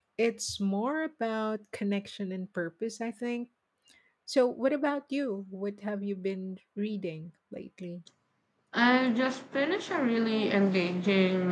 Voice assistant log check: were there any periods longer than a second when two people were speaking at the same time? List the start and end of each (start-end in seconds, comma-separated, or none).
none